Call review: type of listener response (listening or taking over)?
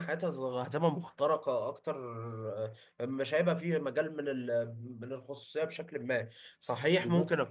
listening